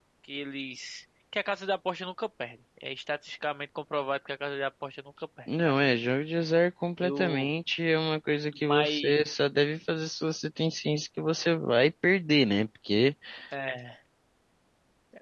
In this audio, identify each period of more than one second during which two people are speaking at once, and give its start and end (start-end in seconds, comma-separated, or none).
none